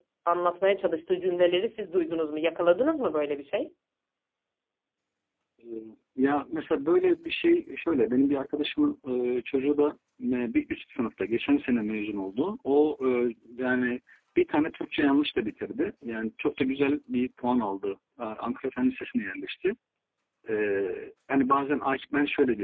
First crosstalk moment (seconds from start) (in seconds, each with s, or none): none